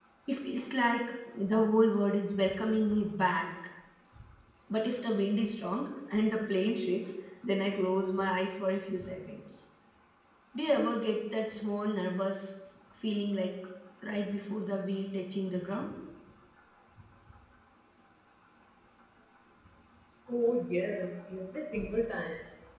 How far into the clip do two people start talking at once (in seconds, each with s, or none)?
none